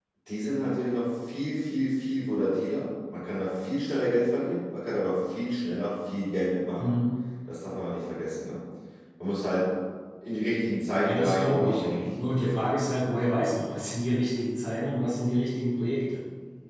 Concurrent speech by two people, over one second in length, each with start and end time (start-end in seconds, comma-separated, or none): 11.0-12.5